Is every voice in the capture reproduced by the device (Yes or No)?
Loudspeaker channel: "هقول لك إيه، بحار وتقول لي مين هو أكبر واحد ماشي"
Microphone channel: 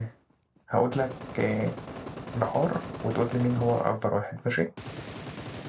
Yes